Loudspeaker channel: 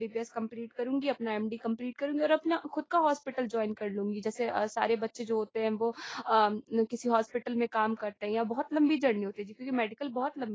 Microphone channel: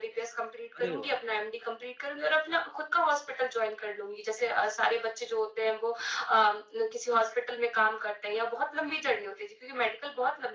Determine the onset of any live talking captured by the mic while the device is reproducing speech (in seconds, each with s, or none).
0.8 s